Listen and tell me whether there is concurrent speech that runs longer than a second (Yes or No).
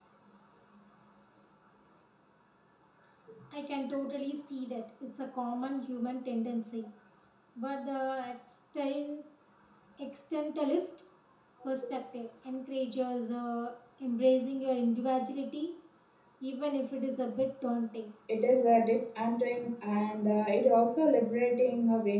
No